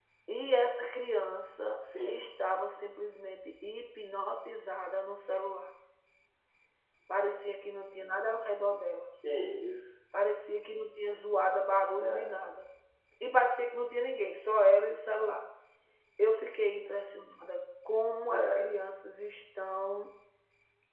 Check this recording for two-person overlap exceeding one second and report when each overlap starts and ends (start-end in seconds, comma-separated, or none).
none